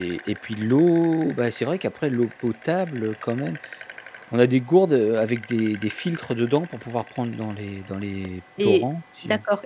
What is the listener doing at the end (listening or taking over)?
taking over